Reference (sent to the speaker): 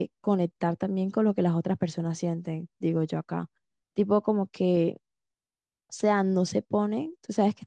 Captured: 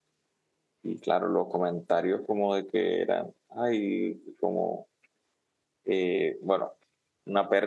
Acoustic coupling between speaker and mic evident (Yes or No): No